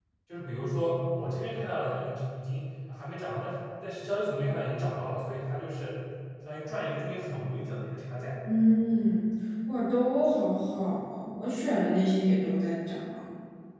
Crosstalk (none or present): none